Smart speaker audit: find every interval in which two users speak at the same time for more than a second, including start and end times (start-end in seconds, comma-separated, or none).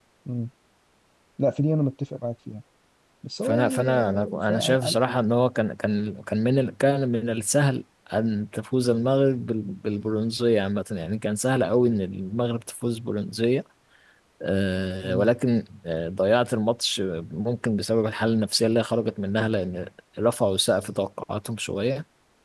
3.4-4.8